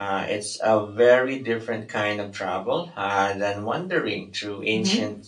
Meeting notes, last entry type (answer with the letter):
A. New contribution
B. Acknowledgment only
A